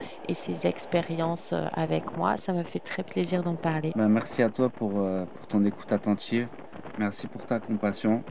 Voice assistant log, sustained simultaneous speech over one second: none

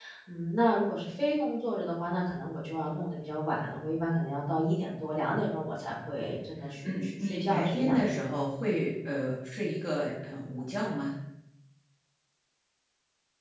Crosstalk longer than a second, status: present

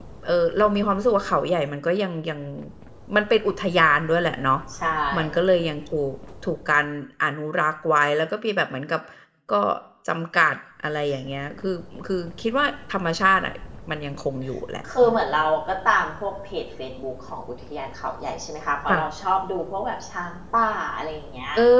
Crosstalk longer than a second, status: none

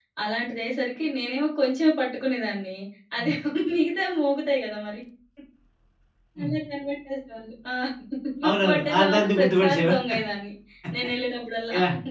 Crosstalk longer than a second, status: present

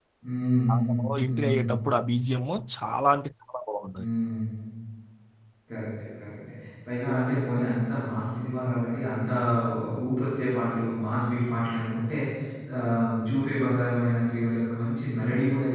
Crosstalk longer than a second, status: none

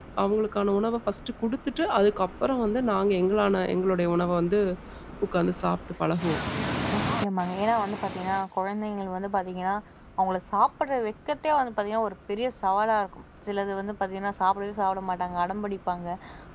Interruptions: none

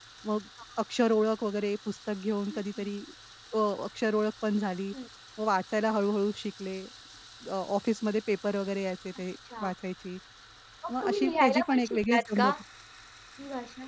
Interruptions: present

